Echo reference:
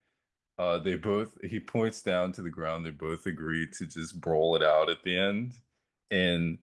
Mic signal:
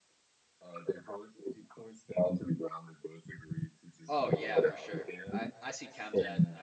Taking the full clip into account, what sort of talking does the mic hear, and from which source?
both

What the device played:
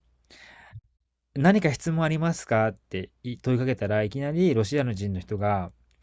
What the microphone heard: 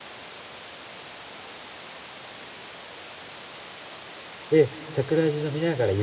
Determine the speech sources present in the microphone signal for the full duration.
user only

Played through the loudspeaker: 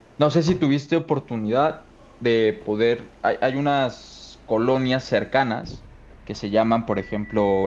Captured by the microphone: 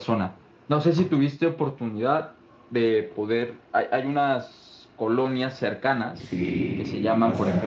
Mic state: both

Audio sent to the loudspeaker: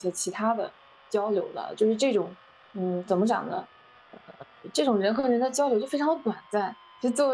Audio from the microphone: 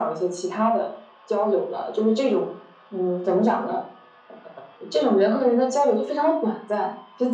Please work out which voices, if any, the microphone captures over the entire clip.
echo only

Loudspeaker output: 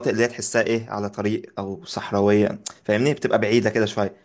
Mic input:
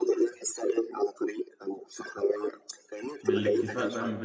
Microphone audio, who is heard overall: both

